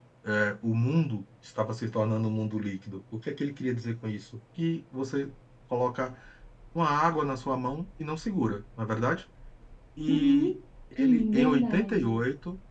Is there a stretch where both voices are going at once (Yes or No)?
Yes